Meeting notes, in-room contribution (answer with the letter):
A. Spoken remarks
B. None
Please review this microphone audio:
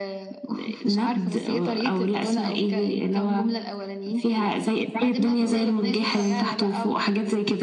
A